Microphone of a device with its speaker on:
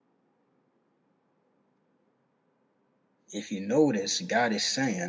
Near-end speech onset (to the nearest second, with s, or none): 3 s